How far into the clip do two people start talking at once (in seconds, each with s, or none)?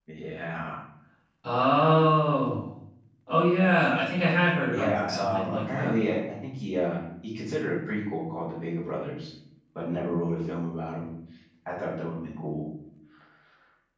4.7 s